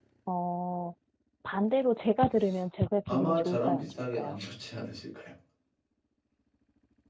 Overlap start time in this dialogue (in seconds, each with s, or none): 3.1 s